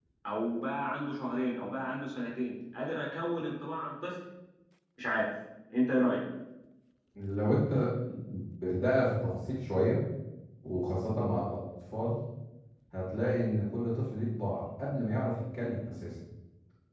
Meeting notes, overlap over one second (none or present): none